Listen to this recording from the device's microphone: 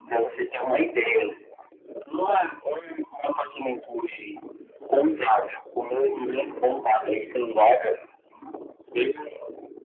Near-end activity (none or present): none